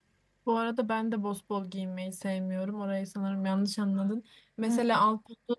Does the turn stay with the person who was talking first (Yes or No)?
Yes